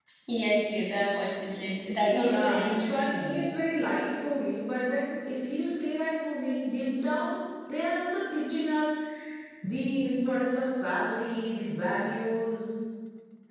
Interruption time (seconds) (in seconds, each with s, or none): 2.0 s